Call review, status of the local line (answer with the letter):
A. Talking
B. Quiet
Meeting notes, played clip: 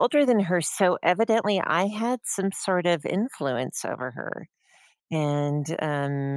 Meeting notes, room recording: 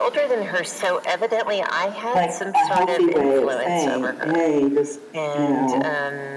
A